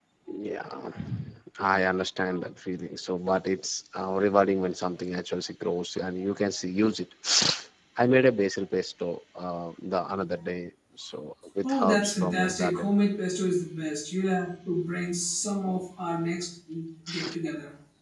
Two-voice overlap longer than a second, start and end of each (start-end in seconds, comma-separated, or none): 11.6-12.9